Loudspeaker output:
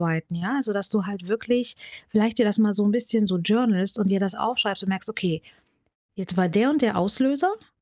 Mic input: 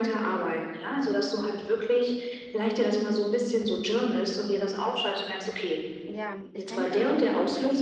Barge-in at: 6.1 s

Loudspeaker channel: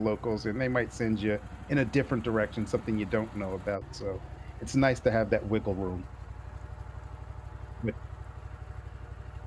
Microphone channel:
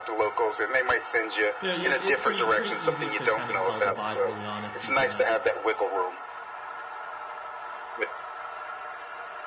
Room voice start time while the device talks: 1.7 s

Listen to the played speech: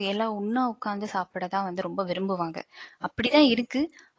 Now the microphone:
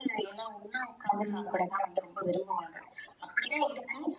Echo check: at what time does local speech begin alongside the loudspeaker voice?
1.1 s

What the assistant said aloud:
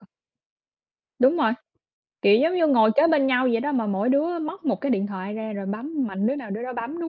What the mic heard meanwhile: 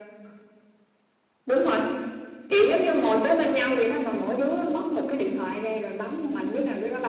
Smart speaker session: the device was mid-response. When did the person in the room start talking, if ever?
none

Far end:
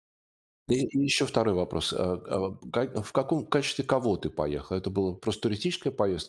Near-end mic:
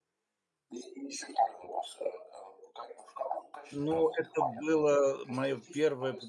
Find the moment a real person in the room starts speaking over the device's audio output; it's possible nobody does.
3.7 s

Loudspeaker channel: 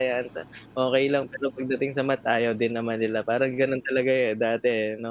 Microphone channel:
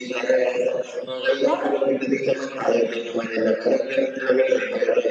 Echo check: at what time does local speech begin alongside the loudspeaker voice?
1.4 s

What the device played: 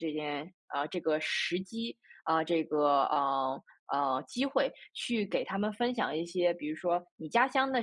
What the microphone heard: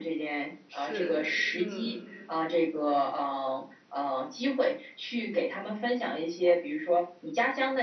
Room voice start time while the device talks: 0.7 s

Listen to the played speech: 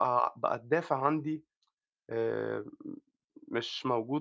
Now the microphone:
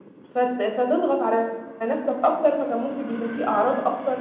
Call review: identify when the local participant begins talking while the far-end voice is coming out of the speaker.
0.3 s

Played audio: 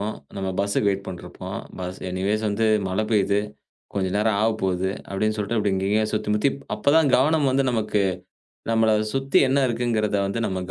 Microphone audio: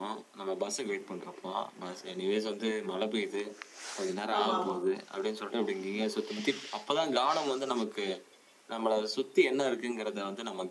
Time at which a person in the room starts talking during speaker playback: 4.4 s

